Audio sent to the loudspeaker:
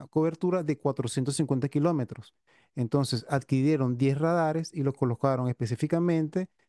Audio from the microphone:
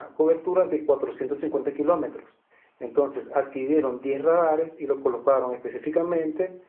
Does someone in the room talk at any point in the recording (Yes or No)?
No